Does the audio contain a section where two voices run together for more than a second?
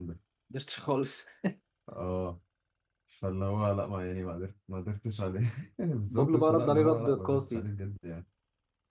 Yes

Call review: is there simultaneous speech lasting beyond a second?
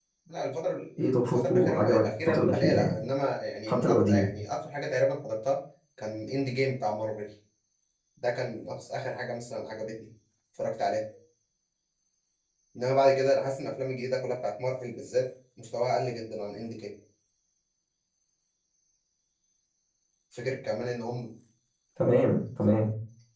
Yes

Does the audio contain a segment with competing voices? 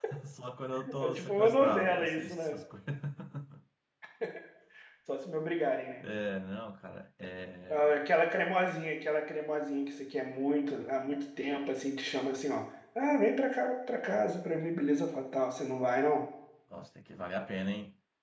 Yes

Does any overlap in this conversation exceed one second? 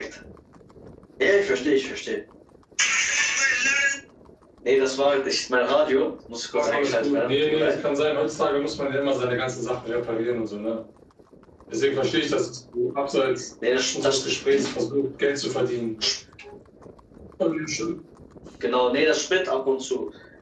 Yes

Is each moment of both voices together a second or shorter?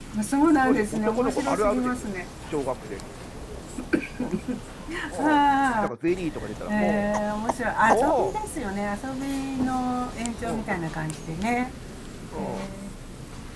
No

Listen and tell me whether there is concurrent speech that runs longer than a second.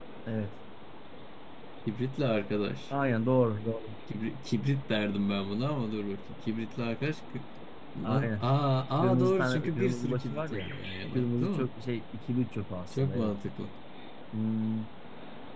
Yes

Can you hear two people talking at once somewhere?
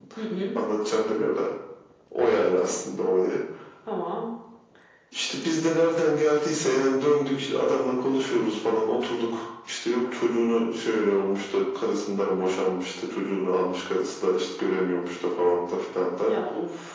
No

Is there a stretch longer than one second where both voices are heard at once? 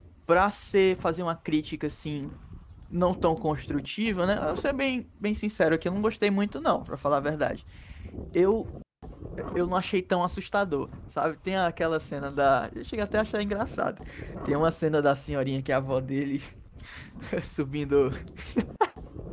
No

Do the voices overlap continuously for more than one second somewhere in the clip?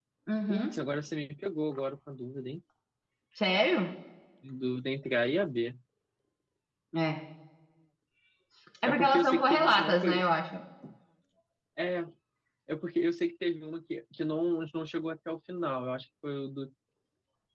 Yes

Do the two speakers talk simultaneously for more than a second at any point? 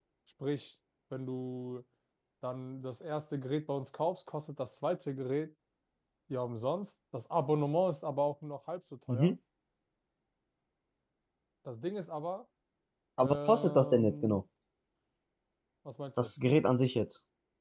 Yes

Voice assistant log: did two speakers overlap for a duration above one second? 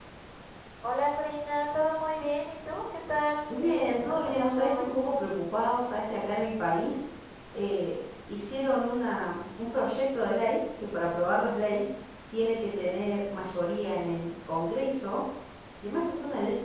Yes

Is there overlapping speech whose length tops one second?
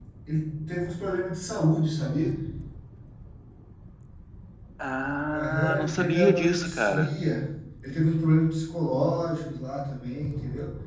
Yes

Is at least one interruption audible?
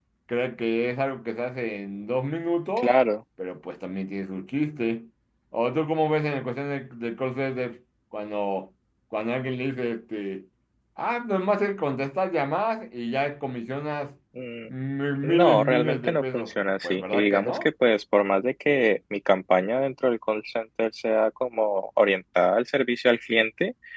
Yes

